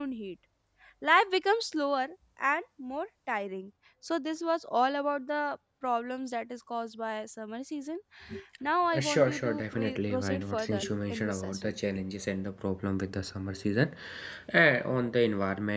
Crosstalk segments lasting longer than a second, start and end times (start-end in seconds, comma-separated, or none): 8.9-11.8